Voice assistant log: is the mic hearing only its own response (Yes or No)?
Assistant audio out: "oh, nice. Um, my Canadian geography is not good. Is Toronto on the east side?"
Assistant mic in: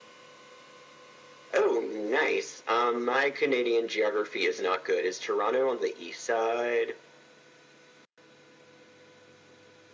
Yes